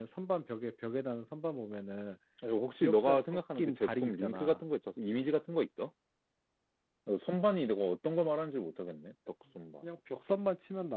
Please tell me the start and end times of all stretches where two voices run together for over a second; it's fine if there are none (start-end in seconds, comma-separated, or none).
2.8-4.6